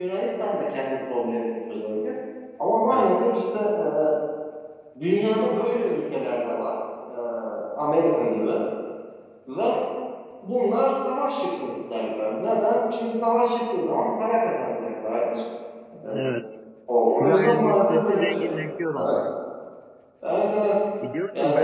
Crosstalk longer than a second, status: present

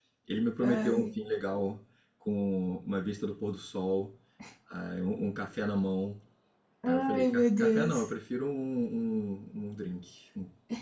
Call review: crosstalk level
present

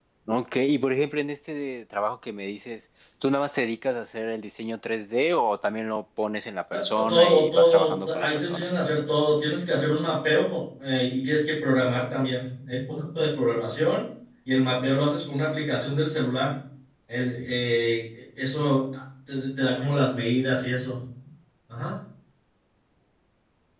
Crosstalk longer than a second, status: present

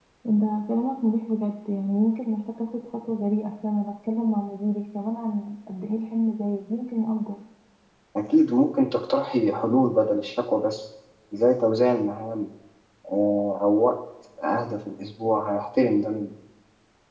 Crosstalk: none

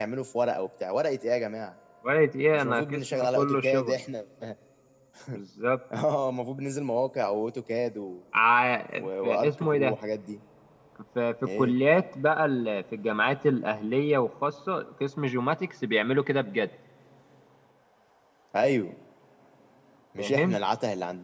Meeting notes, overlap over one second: present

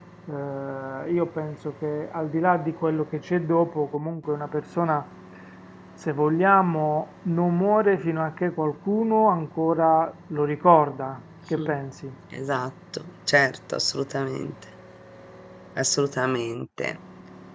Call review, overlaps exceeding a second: none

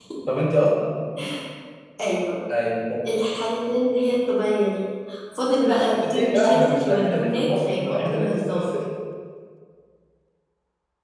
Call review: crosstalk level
present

